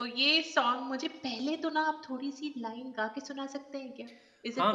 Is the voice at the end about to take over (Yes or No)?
Yes